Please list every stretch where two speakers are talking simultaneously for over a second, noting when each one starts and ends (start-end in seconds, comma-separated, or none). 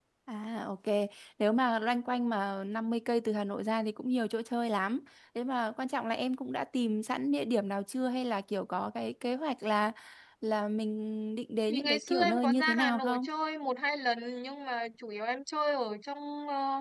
11.7-13.2